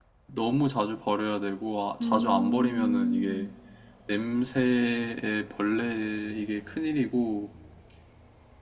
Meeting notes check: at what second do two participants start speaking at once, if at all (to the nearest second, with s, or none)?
2 s